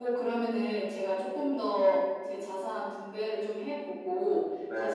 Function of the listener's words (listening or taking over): listening